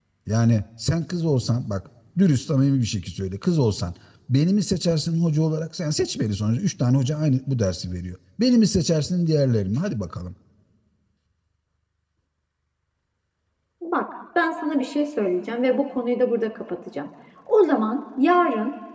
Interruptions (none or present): none